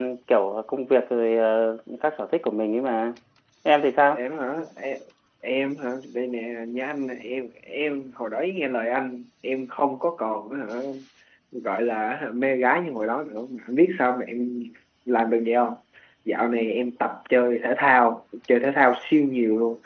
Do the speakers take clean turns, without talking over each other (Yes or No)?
Yes